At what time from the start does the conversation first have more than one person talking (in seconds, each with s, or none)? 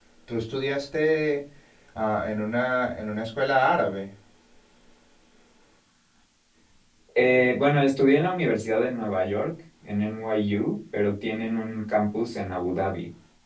none